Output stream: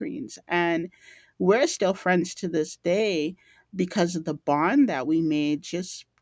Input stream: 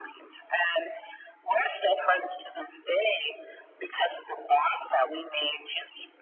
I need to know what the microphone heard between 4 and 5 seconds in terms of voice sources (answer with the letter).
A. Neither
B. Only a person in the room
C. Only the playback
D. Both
C